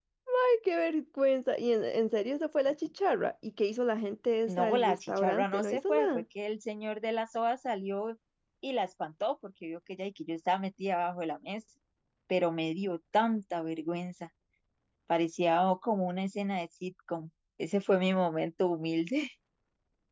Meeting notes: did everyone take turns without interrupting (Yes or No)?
No